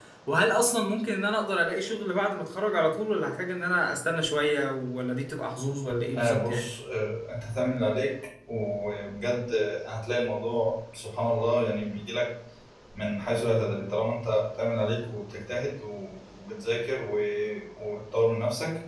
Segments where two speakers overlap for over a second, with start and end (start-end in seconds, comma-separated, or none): none